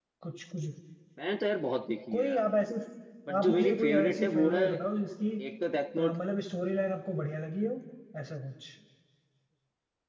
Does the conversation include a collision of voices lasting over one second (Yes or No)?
Yes